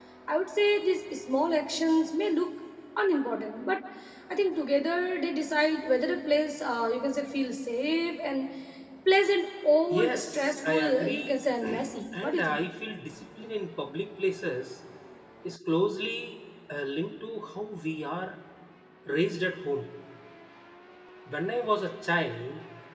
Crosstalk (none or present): present